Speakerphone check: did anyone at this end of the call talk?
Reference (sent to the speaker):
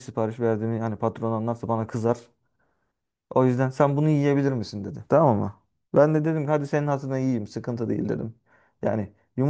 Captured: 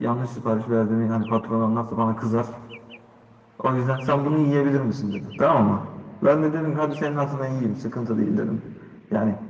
No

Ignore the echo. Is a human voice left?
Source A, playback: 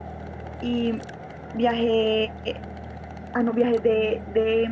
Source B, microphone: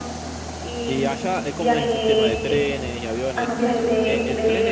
Yes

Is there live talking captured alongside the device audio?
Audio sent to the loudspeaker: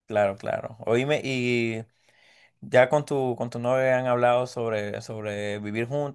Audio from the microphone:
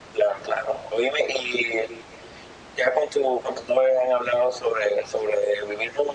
No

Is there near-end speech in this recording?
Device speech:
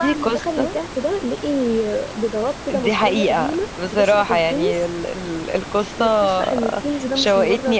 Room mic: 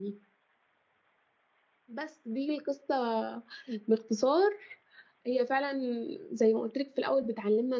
Yes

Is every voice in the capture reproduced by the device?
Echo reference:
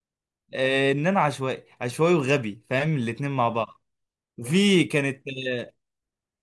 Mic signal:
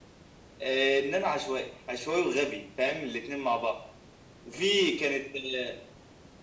Yes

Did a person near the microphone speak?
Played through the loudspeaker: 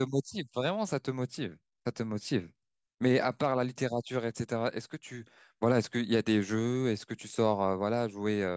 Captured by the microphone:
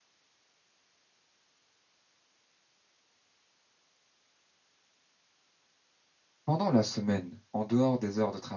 Yes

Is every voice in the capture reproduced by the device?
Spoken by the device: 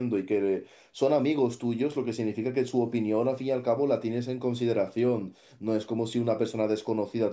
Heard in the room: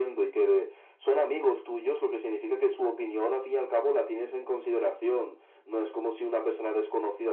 Yes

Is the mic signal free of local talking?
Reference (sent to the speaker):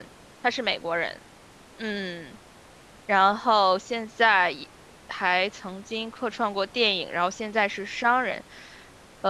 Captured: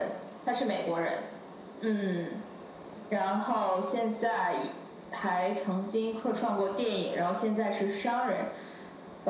Yes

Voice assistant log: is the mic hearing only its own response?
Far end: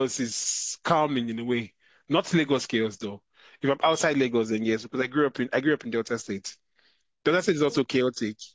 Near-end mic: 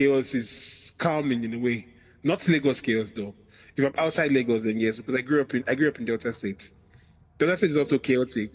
Yes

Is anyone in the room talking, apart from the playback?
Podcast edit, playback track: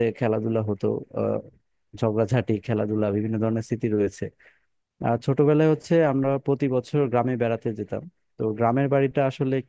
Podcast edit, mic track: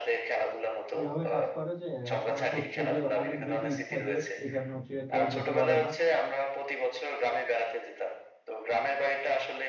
Yes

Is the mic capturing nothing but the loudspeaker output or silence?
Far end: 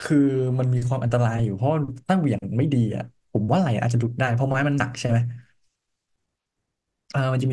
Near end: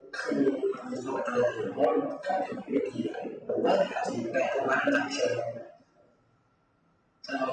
Yes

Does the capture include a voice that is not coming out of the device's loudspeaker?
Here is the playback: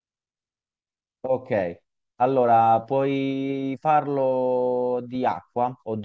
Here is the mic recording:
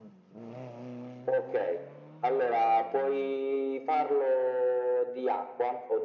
No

